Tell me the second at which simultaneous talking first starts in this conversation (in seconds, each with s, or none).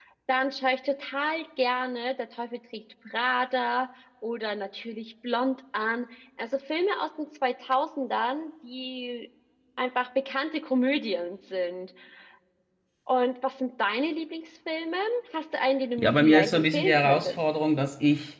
16.0 s